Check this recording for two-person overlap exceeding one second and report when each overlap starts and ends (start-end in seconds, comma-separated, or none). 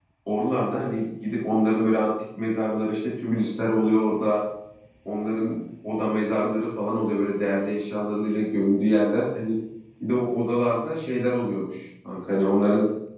none